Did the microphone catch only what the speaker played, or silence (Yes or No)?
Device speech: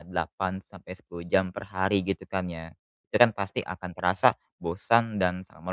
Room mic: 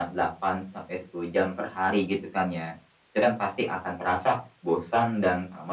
Yes